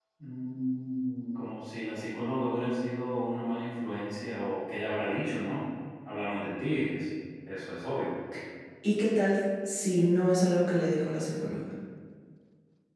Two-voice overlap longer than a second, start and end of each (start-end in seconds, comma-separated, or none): none